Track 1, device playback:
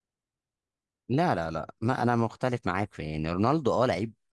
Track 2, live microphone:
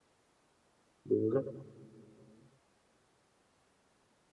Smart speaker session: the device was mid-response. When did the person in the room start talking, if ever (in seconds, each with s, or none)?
1.0 s